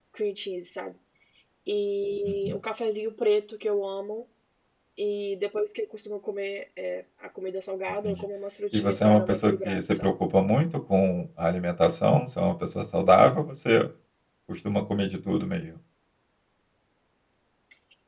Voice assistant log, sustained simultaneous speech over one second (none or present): present